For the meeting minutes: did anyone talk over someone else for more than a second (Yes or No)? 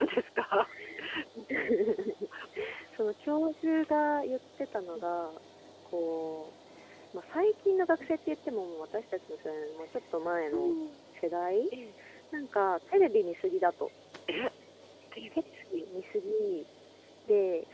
No